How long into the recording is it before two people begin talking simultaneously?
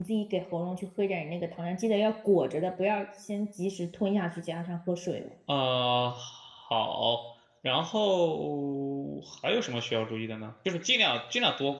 none

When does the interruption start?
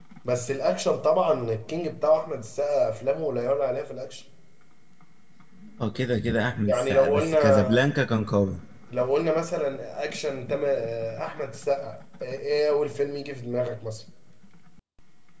6.6 s

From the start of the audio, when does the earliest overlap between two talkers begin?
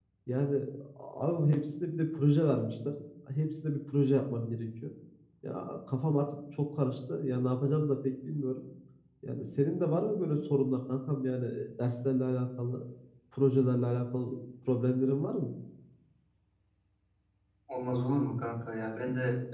none

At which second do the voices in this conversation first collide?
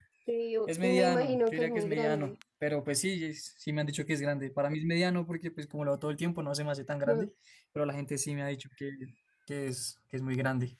0.7 s

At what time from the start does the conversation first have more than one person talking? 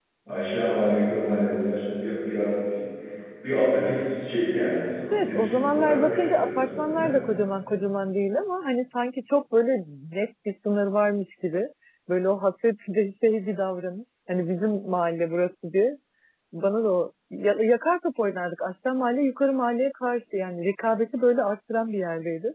5.1 s

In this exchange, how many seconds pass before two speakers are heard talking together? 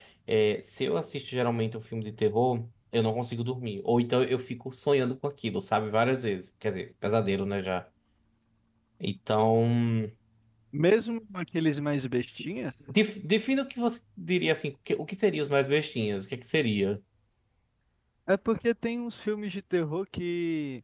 none

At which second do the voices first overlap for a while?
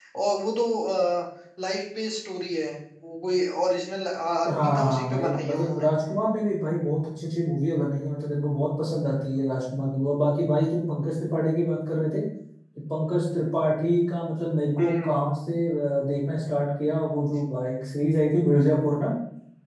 4.5 s

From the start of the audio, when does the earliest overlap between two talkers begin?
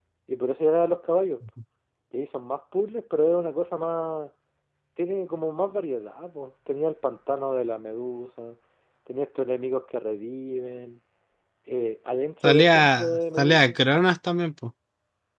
12.4 s

